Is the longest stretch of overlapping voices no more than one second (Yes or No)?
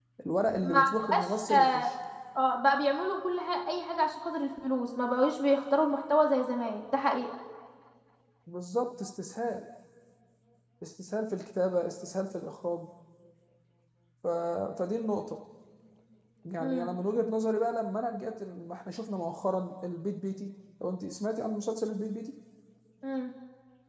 No